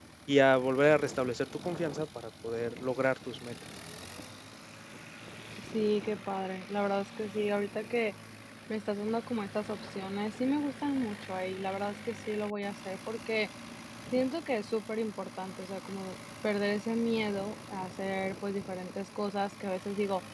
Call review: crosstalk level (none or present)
none